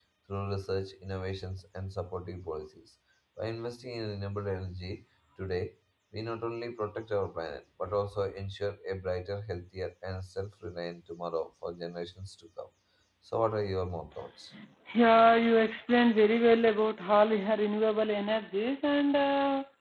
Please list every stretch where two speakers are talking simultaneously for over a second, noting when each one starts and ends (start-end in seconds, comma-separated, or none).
none